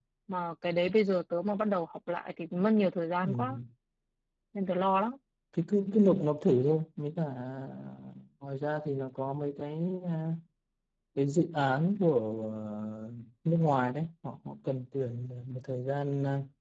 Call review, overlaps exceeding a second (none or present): none